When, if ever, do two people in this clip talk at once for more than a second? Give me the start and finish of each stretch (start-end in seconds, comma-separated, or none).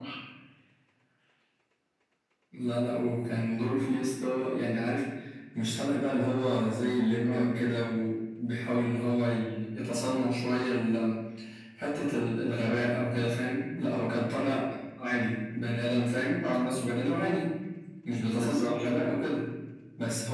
none